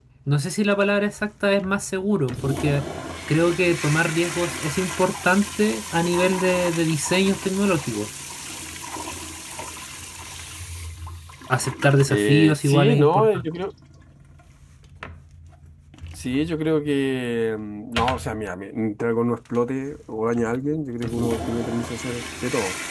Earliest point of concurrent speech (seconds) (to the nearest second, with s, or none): 12 s